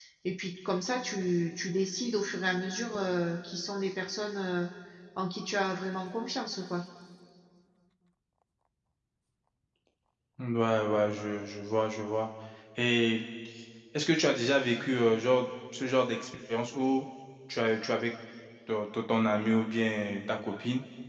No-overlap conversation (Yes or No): Yes